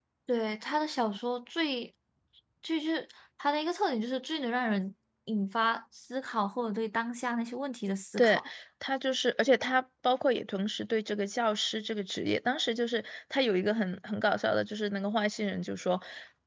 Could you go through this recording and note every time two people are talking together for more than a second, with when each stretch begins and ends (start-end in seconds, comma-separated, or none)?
none